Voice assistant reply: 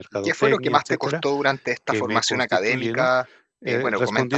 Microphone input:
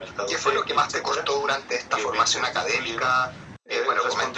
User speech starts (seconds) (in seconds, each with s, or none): none